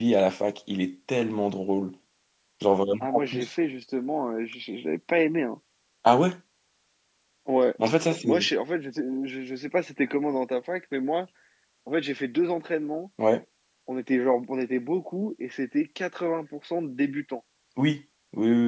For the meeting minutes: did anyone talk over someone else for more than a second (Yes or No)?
No